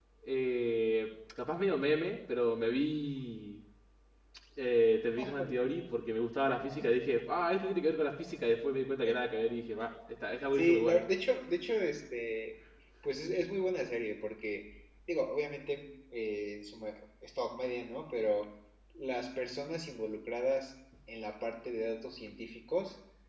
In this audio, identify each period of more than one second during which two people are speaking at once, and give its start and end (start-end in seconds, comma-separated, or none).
none